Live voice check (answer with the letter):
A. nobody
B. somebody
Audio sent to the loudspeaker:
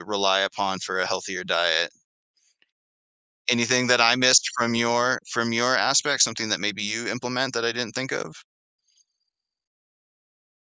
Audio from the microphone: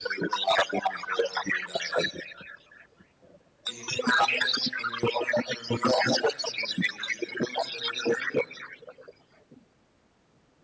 A